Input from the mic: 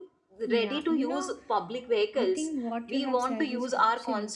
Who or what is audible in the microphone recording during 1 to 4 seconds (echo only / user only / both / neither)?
both